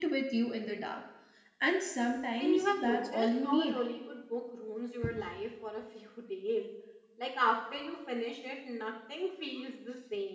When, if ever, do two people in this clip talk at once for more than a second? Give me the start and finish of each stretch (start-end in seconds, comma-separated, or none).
2.4-3.8